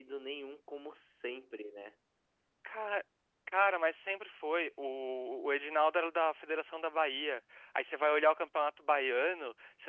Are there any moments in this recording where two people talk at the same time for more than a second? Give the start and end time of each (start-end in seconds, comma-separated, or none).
none